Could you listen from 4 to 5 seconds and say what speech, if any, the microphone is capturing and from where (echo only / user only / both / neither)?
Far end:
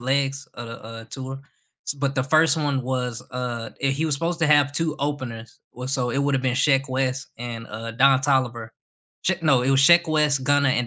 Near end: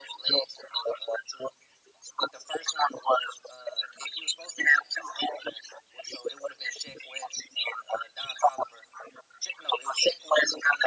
echo only